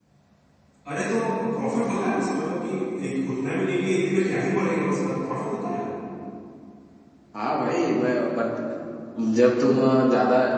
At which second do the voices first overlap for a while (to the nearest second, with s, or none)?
none